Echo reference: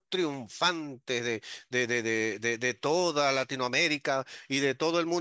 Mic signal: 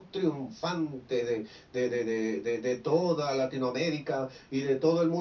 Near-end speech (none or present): none